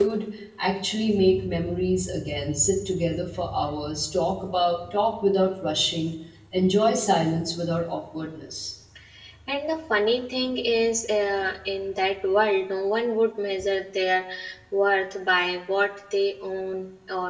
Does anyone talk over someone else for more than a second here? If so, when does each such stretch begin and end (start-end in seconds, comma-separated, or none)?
none